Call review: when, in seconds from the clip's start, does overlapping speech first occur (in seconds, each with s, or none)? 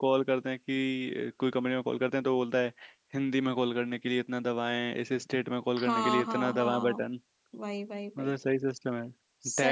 5.8 s